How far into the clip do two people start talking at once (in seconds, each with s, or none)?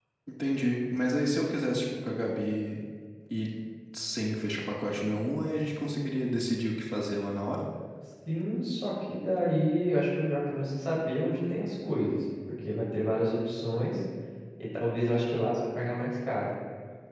none